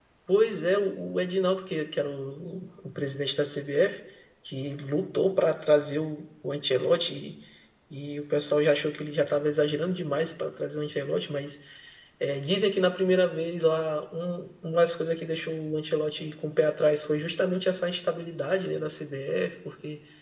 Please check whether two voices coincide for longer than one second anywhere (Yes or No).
No